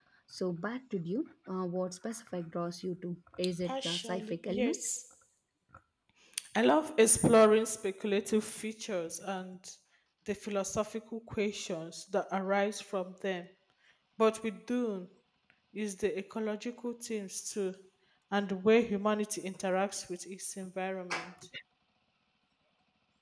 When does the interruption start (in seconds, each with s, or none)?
3.6 s